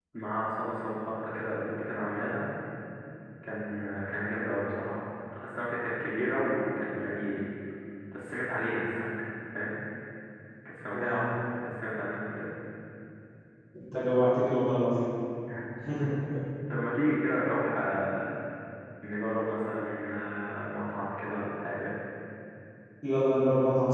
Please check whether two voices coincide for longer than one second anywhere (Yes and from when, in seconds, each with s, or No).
No